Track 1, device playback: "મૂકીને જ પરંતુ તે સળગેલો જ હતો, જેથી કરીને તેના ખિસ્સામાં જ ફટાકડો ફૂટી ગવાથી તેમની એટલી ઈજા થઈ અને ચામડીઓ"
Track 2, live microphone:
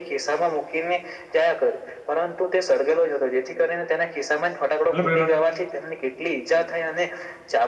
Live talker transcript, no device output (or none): મતલબ